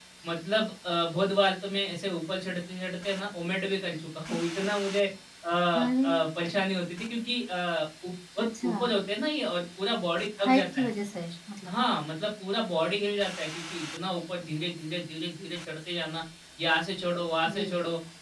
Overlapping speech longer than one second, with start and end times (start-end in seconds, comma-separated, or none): none